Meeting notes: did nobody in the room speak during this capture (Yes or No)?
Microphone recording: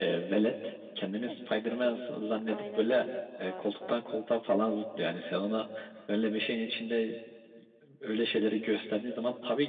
No